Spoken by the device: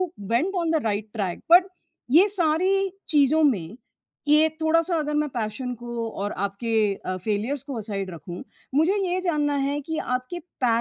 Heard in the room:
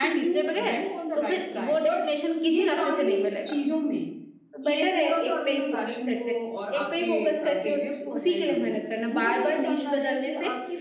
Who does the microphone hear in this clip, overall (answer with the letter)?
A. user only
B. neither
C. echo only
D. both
D